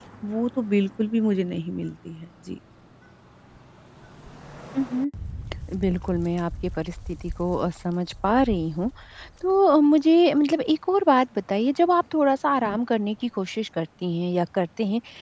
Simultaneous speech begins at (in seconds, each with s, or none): none